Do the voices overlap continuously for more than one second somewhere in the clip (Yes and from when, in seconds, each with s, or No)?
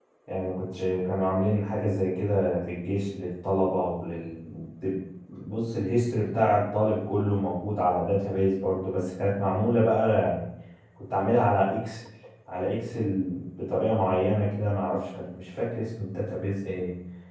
No